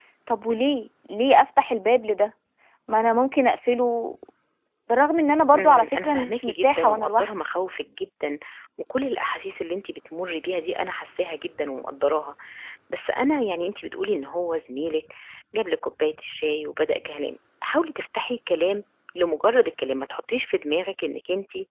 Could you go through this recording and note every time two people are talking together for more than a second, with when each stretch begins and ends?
5.5-7.3

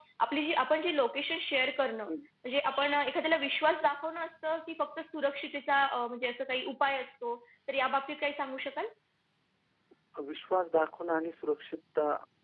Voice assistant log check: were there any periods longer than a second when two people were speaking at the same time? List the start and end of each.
none

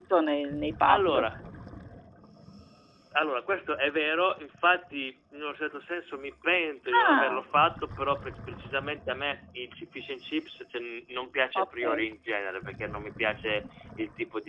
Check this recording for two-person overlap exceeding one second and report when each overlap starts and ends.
none

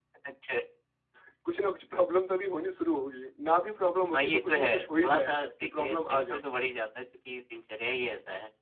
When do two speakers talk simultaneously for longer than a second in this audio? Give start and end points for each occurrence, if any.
4.1-6.4

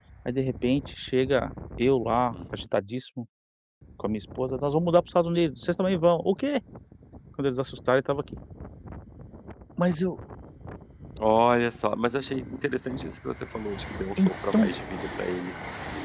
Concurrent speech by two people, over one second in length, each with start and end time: none

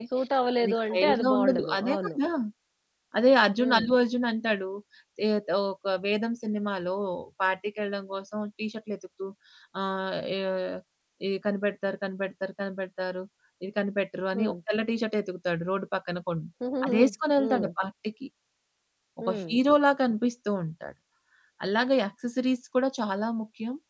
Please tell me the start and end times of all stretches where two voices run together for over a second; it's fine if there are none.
0.6-2.1

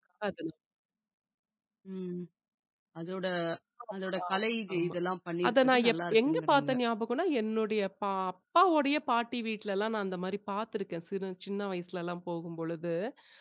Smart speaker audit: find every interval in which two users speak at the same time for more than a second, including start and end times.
5.5-6.7

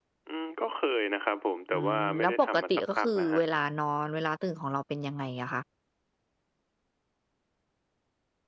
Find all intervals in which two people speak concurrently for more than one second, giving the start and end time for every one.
1.7-3.4

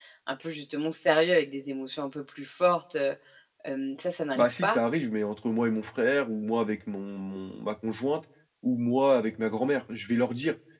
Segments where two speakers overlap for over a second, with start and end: none

